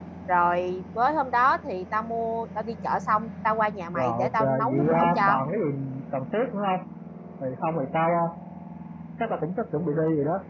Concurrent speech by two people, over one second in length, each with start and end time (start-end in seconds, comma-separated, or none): 3.9-5.4